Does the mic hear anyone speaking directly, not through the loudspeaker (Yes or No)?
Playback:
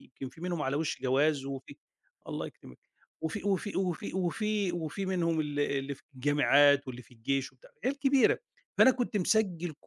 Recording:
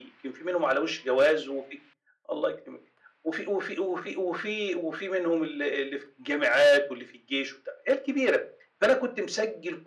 No